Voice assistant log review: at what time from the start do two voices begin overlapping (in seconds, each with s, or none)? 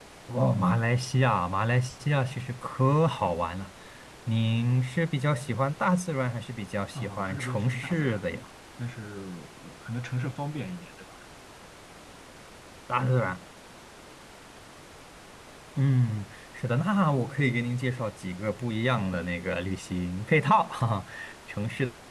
6.9 s